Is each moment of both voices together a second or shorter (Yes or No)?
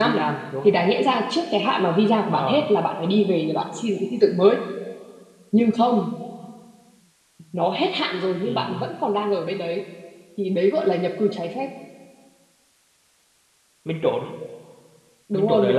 Yes